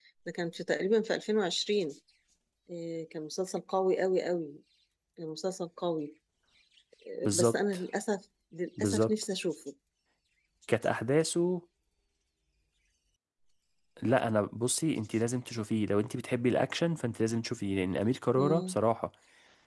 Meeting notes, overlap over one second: none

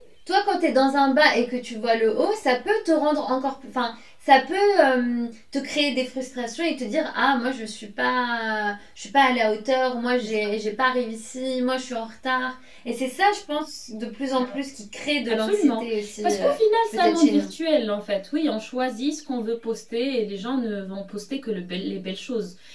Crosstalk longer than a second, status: present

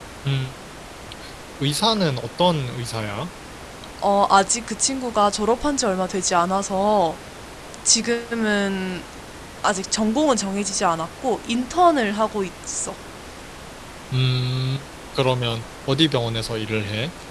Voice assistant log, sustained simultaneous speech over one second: none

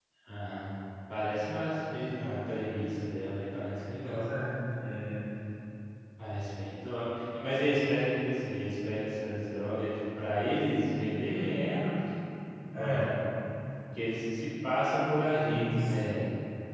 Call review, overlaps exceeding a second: none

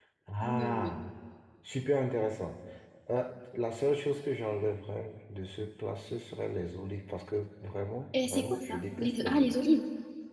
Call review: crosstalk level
present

